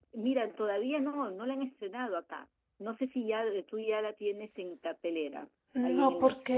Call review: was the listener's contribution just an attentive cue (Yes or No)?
No